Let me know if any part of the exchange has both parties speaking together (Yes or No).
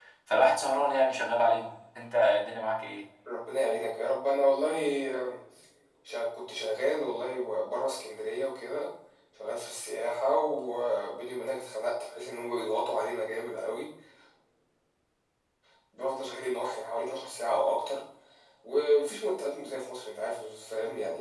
No